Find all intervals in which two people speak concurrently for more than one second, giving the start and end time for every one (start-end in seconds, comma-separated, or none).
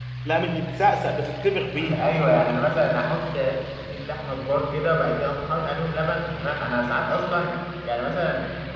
none